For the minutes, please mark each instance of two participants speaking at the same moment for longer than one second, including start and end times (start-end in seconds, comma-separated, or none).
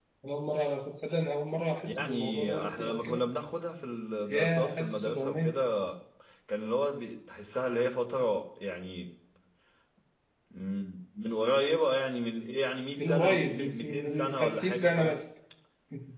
1.9-3.2, 4.3-5.5, 13.0-15.2